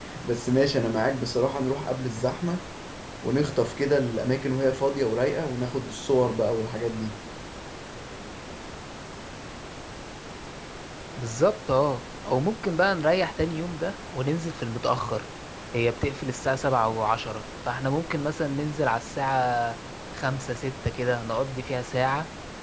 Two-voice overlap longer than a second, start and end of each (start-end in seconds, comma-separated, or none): none